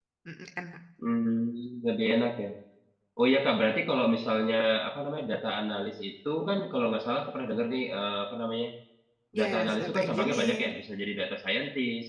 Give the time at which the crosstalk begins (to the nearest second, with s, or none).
9 s